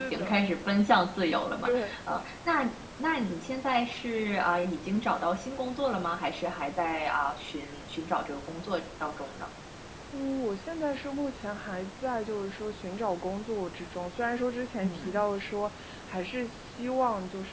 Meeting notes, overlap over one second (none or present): none